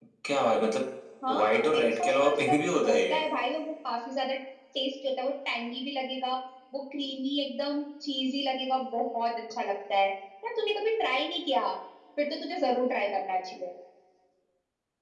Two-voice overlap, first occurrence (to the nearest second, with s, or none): 1 s